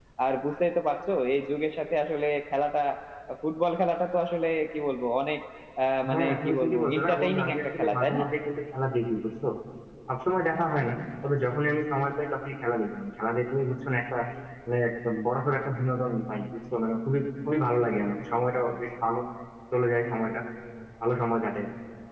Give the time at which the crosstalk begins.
6 s

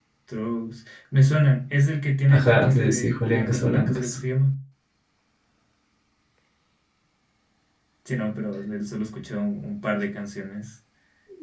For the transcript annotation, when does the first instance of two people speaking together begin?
2 s

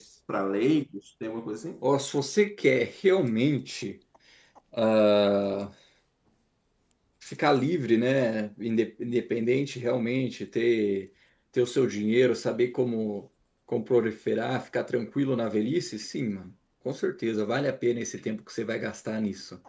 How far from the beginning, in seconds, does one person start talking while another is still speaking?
none

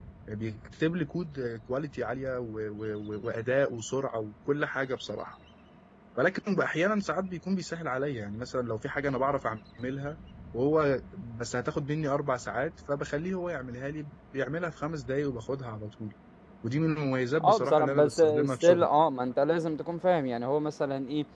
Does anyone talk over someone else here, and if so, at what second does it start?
17 s

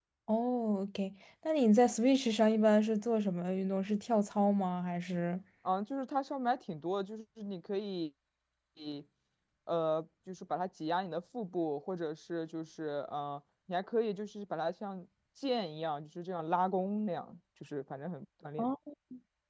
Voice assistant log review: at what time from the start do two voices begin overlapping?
none

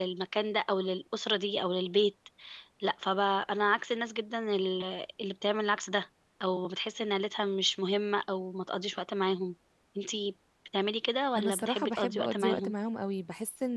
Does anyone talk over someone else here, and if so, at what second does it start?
11 s

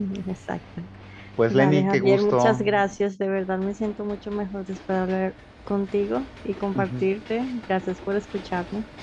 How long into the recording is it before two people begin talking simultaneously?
2 s

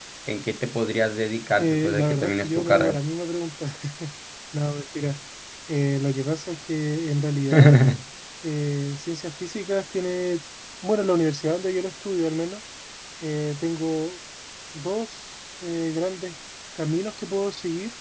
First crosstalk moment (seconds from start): 2 s

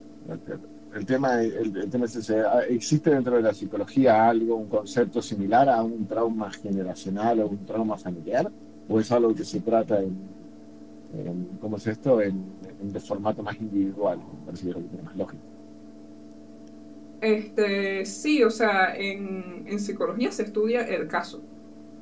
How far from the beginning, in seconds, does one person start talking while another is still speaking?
none

